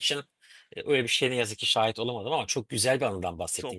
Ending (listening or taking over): taking over